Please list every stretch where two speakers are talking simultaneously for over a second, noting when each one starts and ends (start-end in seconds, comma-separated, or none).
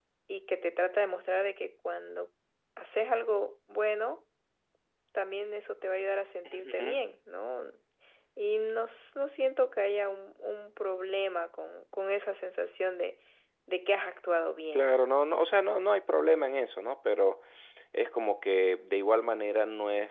none